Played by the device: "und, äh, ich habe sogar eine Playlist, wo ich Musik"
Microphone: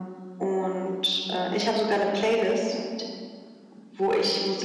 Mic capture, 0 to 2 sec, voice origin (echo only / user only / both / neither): echo only